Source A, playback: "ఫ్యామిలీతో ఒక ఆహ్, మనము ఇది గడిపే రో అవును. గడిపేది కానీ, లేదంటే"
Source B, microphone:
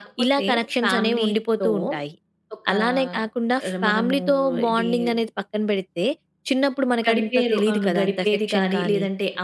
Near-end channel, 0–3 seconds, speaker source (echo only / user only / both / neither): both